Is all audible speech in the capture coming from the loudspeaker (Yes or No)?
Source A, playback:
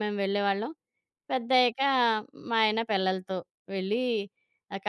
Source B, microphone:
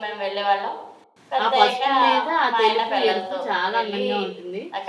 No